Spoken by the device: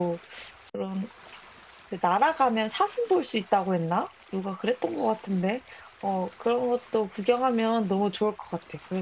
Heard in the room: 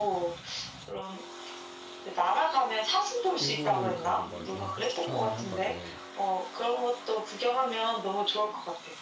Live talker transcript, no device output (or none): 일본을 가는 걸 좀 추천을 하거든.